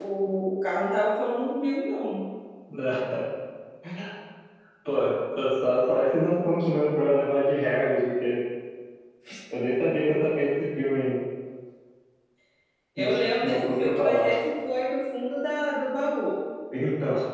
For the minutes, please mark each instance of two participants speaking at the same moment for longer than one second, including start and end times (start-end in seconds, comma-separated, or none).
13.0-14.3